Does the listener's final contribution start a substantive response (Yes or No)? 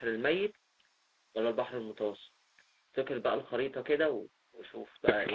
Yes